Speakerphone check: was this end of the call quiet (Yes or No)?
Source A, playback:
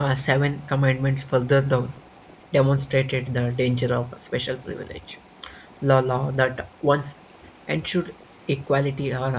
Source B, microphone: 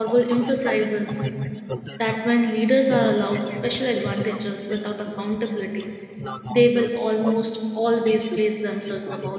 No